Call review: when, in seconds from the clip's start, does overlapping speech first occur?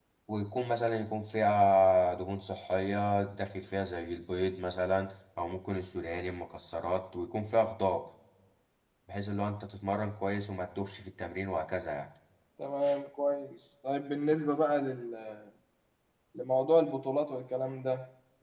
none

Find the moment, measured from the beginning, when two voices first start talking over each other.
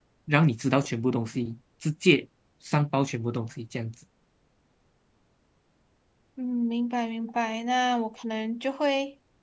none

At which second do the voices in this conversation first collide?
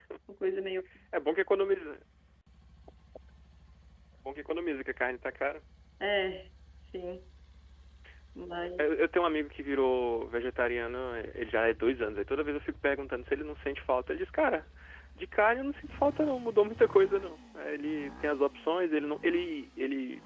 none

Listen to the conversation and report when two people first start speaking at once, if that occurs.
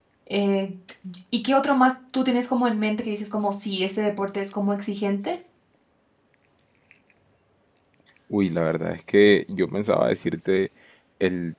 none

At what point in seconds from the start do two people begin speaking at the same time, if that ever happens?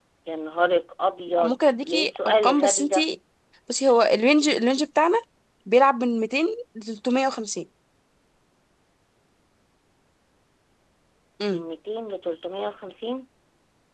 1.4 s

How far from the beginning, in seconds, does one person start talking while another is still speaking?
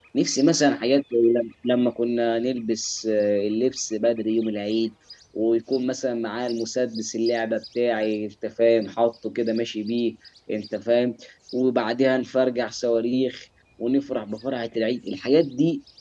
none

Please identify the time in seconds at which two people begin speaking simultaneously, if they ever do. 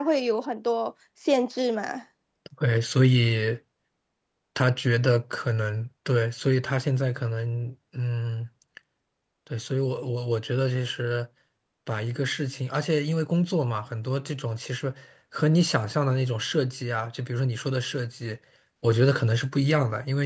none

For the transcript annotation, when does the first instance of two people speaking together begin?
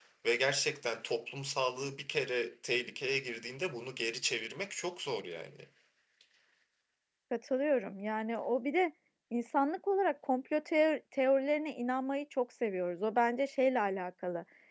none

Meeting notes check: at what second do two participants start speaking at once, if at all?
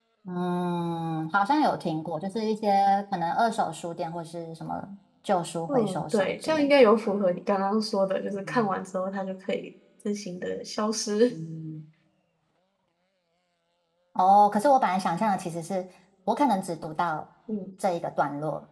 5.7 s

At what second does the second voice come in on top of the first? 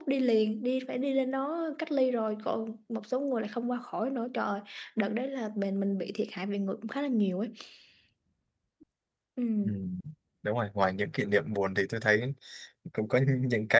none

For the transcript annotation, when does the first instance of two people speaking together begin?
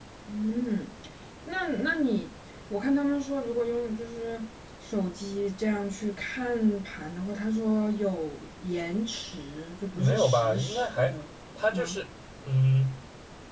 10.0 s

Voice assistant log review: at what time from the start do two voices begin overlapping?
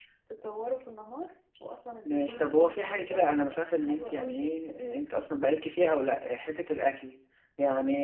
2.0 s

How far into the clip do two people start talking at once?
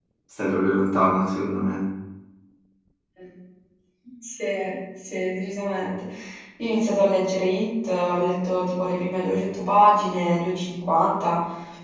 none

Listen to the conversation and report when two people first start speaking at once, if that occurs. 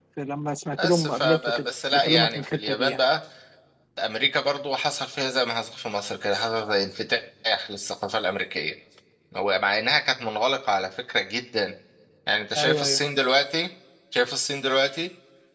0.8 s

